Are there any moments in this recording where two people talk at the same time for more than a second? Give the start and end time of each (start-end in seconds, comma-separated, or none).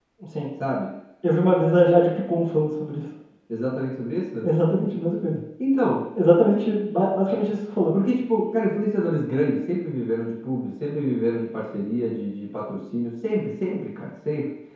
none